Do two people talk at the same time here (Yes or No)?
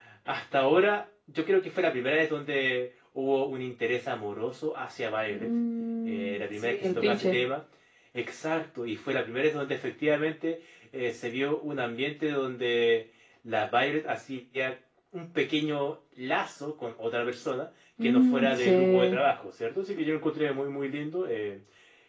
Yes